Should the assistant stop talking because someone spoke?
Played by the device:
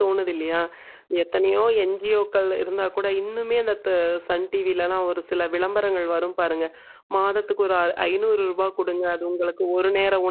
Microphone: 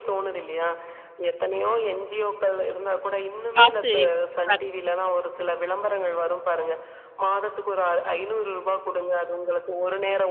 Yes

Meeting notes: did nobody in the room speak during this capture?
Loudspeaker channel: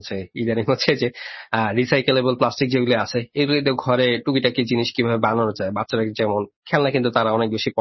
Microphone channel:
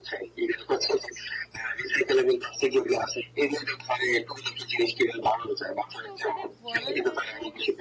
No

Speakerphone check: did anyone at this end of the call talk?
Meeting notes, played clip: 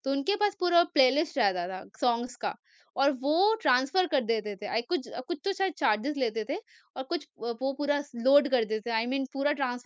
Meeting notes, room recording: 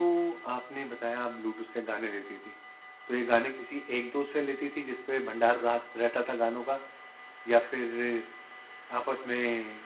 Yes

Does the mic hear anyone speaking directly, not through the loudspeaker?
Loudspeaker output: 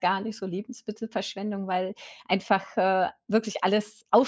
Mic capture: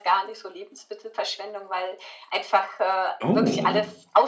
Yes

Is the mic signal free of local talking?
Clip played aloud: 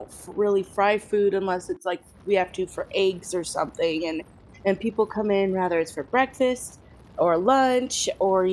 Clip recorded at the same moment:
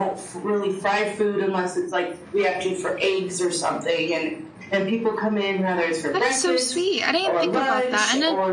No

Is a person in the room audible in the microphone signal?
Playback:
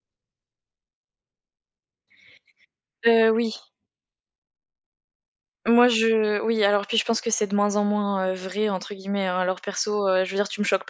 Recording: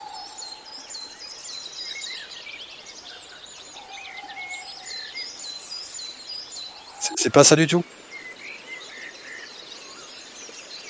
Yes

